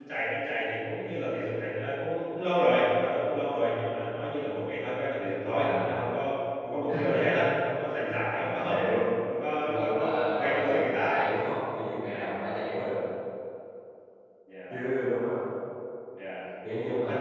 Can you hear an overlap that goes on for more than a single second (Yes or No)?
Yes